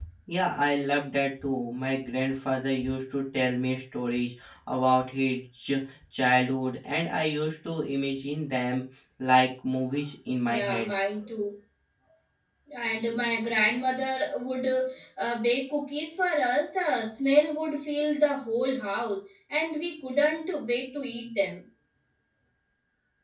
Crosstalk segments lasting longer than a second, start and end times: none

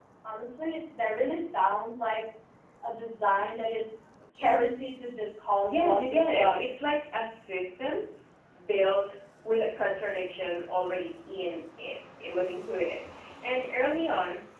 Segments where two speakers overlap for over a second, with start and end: 5.7-6.9

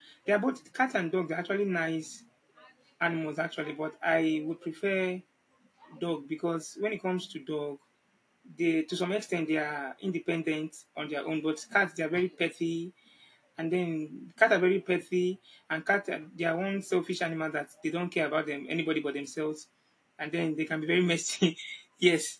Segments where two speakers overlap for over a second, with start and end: none

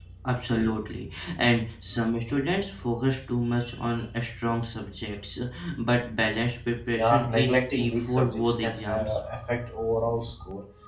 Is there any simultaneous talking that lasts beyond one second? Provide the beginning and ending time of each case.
6.9-9.2

